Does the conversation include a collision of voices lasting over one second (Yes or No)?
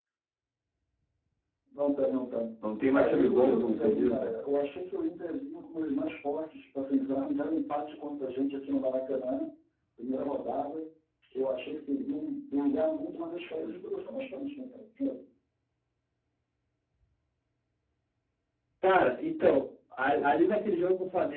Yes